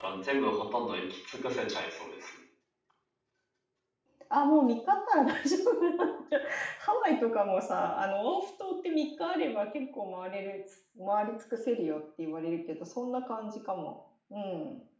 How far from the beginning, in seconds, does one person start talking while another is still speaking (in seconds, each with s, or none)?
none